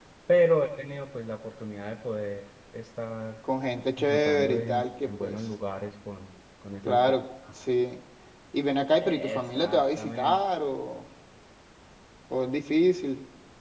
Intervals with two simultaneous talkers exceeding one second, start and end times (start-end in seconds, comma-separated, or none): 4.0-5.4, 9.0-10.4